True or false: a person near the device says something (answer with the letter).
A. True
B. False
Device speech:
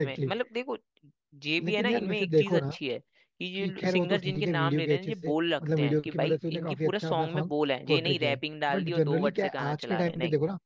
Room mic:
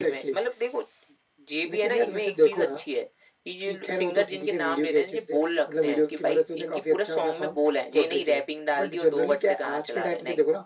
B